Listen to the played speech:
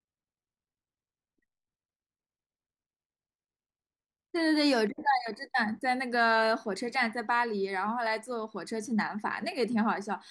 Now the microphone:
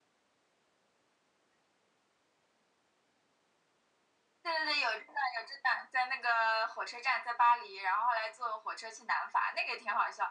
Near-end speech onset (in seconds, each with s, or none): none